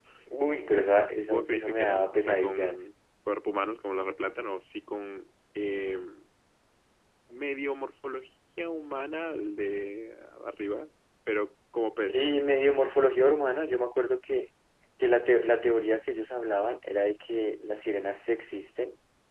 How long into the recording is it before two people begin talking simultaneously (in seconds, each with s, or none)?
1.3 s